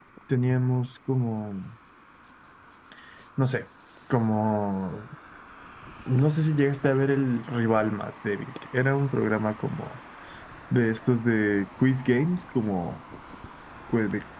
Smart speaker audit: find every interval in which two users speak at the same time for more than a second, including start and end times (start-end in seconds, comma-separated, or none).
none